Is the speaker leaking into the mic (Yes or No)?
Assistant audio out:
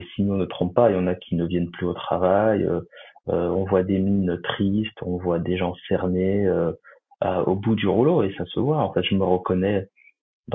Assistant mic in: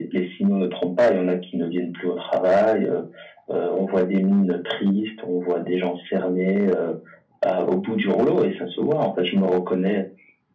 Yes